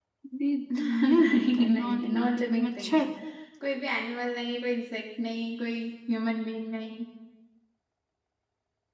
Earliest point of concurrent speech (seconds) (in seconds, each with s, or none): 0.8 s